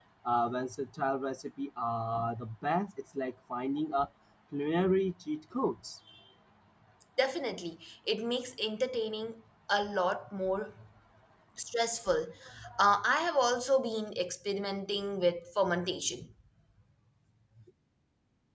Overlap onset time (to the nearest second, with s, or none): none